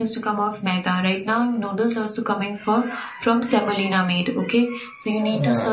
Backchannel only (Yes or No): Yes